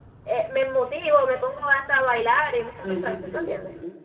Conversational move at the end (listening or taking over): taking over